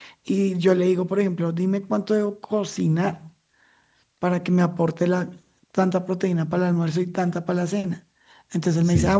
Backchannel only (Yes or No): Yes